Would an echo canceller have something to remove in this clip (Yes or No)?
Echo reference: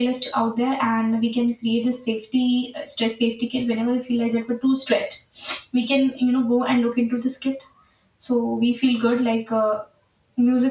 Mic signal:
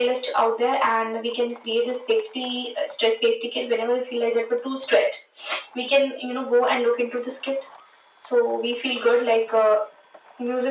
Yes